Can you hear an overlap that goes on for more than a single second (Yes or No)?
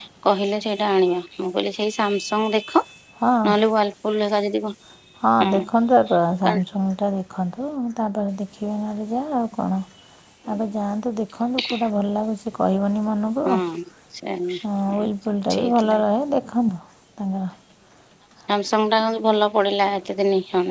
No